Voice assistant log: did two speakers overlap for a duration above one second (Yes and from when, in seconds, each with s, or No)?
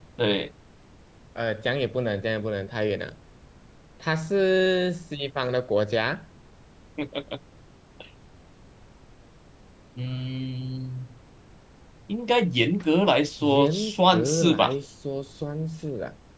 Yes, from 13.4 s